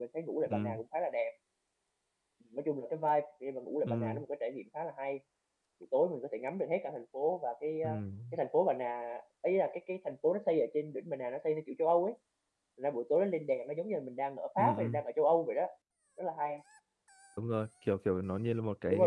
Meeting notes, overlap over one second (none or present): none